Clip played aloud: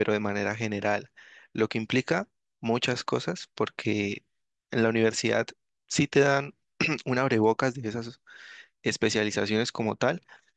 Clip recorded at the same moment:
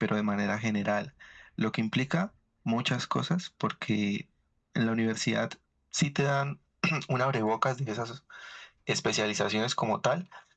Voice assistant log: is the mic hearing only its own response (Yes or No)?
Yes